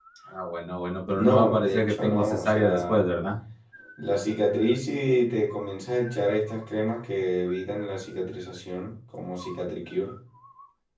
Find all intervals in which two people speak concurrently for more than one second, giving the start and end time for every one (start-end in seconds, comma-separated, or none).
1.1-3.0